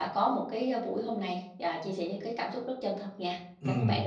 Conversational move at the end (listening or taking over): taking over